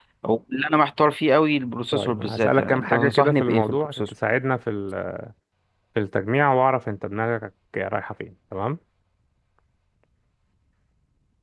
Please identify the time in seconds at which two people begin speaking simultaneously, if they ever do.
1.9 s

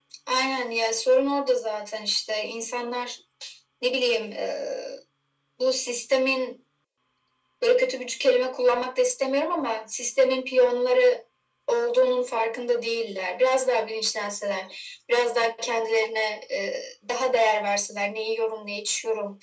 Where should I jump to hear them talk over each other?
none

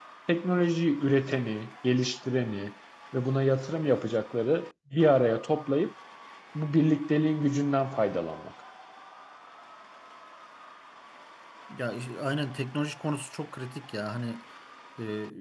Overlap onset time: none

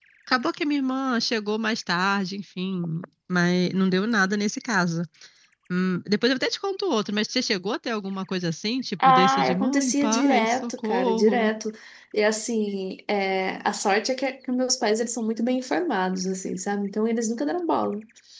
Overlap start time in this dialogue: 9.0 s

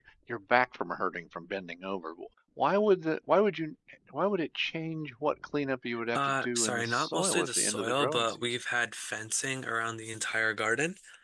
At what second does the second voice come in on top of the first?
5.9 s

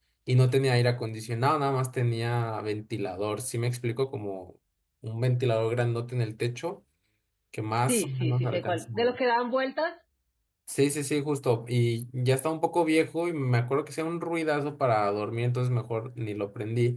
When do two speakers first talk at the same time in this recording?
7.9 s

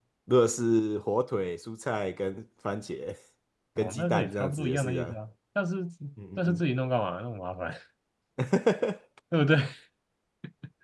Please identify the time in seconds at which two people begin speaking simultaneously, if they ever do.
3.8 s

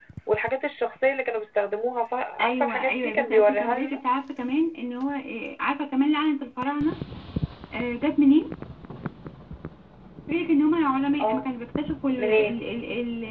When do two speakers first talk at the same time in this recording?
2.4 s

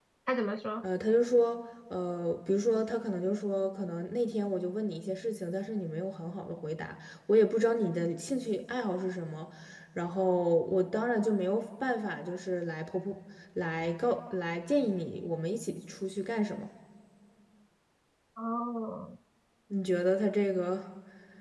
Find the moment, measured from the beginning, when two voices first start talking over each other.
none

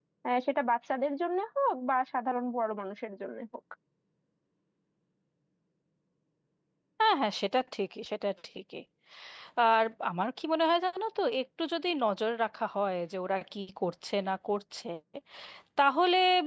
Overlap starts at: none

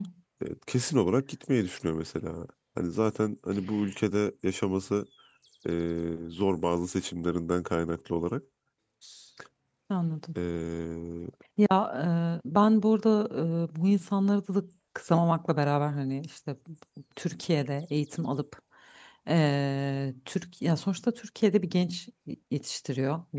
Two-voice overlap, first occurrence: none

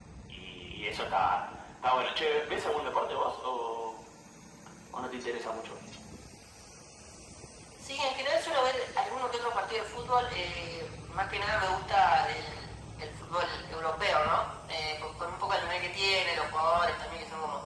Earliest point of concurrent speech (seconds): none

